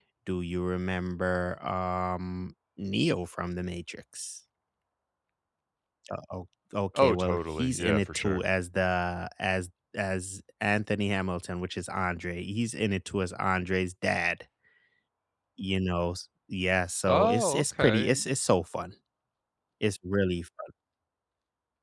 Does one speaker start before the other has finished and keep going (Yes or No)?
Yes